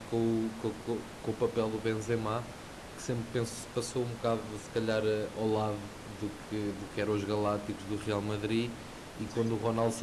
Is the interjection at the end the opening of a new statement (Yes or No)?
No